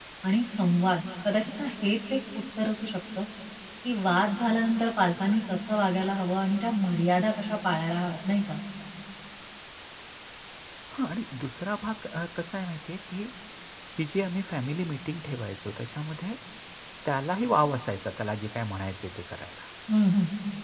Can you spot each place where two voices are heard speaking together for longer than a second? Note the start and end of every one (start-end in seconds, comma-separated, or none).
none